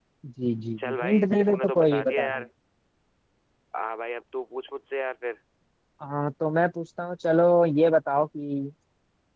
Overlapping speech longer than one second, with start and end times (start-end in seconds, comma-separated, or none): 0.8-2.3